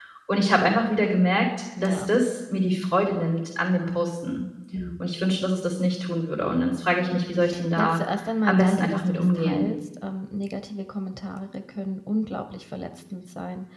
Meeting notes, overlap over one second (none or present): present